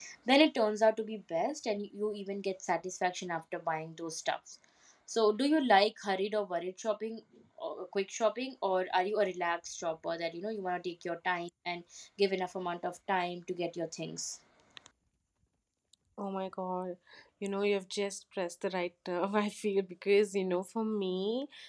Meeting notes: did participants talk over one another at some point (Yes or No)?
No